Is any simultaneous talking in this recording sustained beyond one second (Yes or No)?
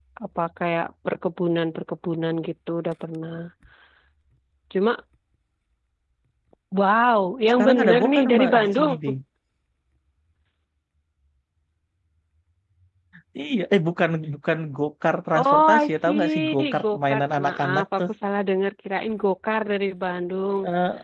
Yes